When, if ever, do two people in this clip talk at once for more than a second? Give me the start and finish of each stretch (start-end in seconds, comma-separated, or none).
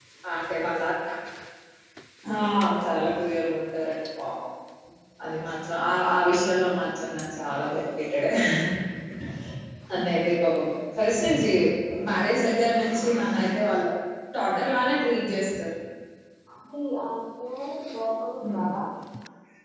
none